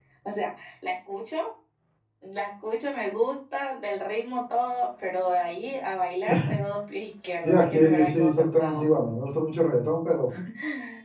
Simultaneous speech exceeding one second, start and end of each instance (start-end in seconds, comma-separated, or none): 7.4-8.8